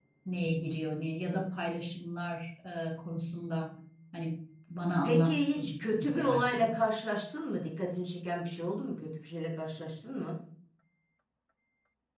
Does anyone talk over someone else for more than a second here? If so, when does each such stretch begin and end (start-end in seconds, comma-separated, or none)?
5.0-6.7